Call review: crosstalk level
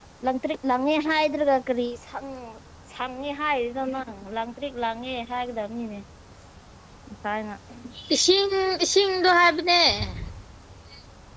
none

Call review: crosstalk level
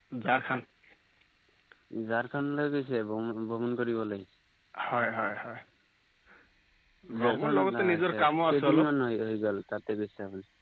present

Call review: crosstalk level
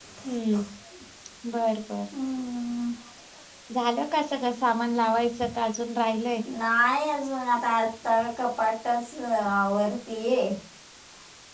none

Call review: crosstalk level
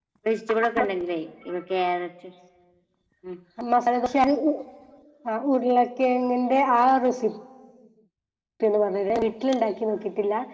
none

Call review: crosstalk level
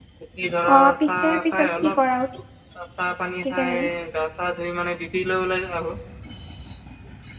present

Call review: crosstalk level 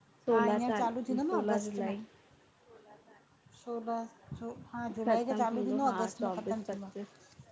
present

